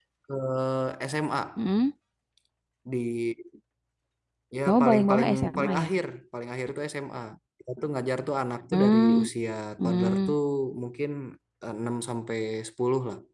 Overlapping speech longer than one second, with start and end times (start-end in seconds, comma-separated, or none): 4.7-5.9